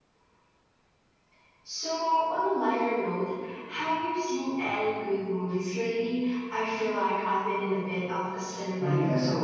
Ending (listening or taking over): taking over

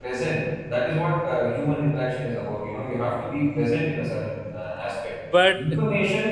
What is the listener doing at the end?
listening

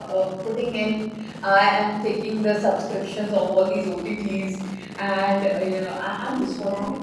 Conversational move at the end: taking over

